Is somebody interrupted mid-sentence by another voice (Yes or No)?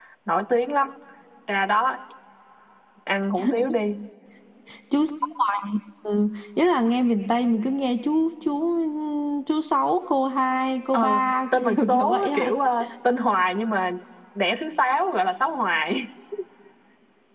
Yes